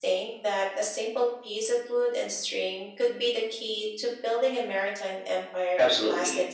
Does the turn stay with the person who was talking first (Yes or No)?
No